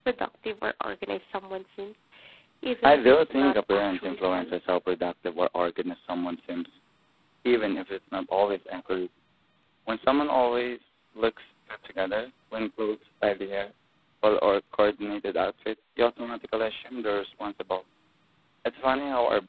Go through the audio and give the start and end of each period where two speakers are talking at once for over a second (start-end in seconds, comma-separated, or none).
2.8-4.5